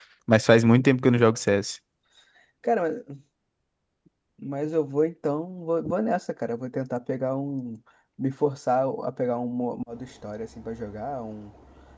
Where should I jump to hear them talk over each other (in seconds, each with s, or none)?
none